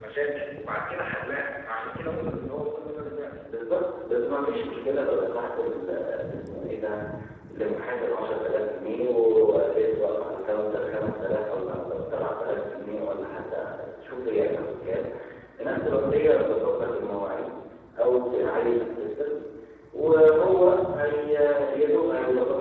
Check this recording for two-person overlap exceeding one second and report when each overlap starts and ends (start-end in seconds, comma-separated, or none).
none